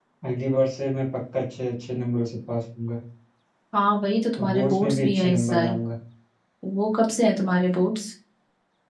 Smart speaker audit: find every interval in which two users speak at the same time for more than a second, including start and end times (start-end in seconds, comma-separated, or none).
4.4-5.7